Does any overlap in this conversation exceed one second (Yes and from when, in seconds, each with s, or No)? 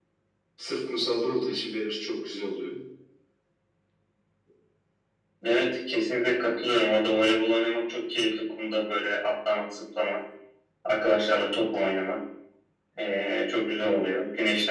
No